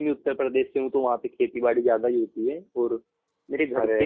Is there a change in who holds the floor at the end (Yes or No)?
No